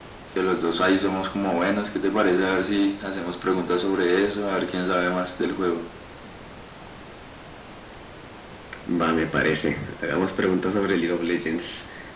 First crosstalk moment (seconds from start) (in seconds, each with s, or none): none